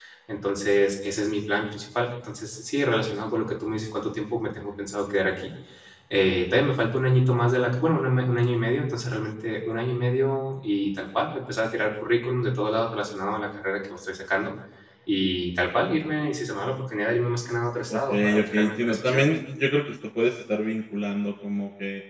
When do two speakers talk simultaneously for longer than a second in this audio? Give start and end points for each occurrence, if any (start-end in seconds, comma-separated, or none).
17.9-19.3